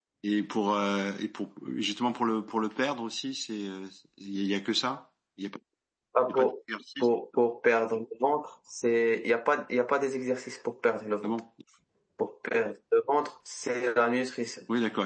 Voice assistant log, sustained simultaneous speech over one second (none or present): none